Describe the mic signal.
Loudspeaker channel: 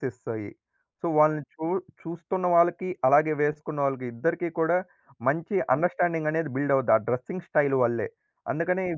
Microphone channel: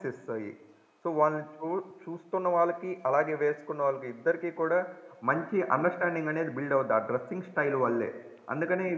echo only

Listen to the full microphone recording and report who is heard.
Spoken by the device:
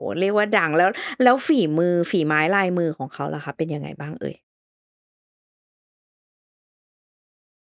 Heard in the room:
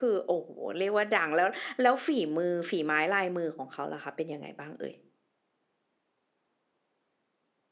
echo only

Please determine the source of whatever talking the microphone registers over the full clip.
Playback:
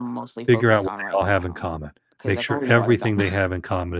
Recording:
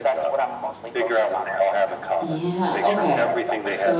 both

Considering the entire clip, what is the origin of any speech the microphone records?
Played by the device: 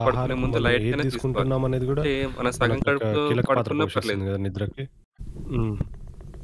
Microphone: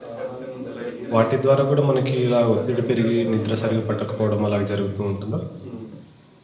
both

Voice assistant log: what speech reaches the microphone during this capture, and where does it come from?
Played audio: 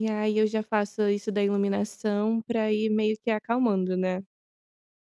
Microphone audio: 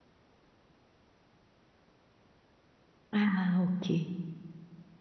user only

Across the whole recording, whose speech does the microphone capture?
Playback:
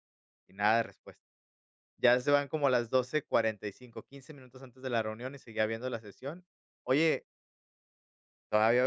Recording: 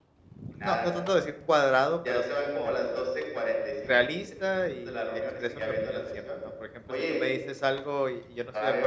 both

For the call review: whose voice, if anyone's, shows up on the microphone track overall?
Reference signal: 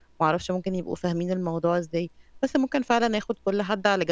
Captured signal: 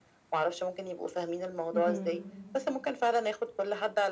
both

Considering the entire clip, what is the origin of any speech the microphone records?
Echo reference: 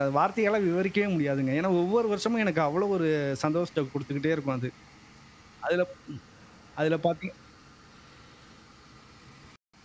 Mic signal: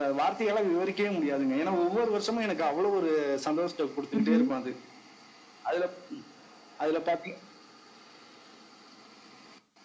both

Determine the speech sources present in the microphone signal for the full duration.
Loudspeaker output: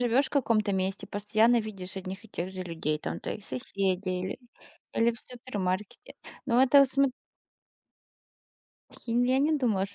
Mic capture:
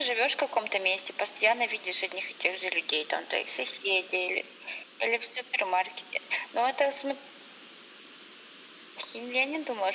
echo only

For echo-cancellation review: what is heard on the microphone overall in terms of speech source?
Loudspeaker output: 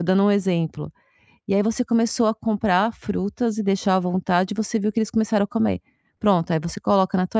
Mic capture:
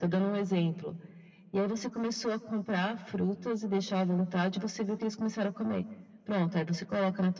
echo only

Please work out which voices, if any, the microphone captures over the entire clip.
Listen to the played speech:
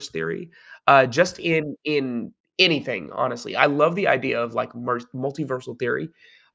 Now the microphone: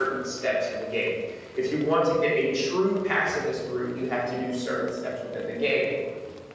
user only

